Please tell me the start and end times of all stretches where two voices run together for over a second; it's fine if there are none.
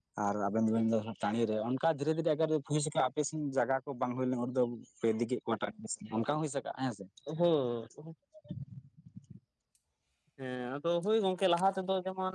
none

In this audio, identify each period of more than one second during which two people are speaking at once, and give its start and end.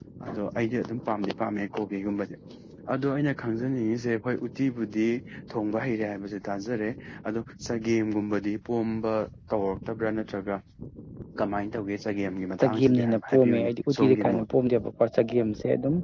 12.6-14.4

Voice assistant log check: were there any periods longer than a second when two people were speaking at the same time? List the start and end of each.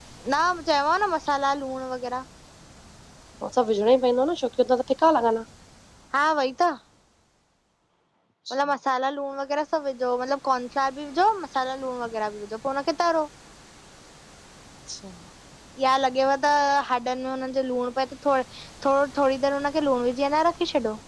none

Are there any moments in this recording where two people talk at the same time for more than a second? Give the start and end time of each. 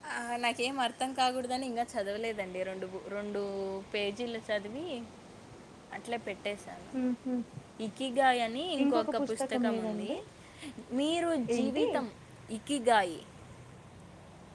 8.8-10.1

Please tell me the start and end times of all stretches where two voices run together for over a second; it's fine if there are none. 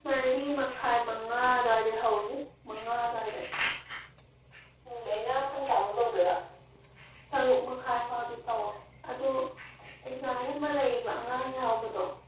none

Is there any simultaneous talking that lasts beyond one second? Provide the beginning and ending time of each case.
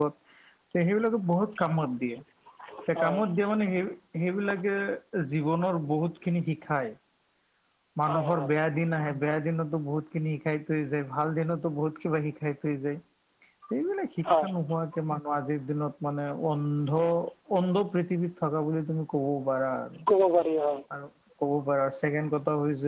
none

